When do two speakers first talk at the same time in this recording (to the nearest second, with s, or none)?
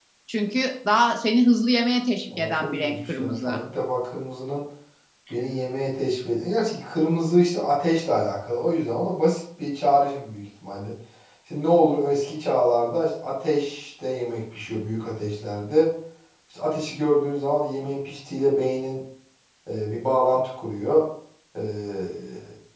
2 s